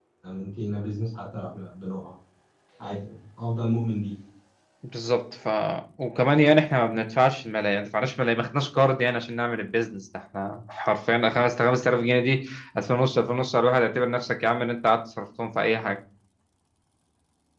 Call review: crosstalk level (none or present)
none